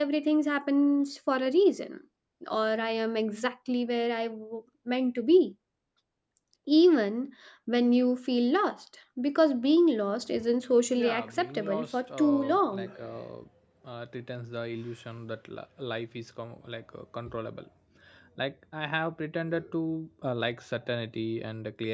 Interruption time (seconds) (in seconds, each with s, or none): 10.9 s